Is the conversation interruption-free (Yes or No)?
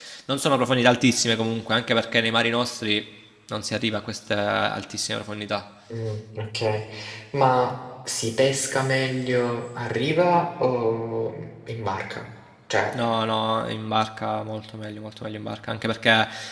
Yes